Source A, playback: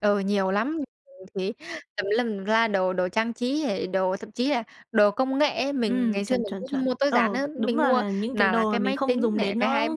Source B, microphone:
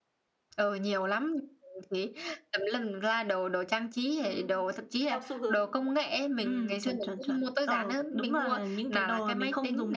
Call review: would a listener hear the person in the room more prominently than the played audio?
No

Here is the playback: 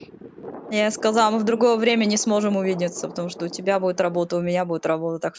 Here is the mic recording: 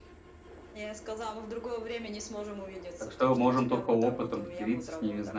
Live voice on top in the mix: Yes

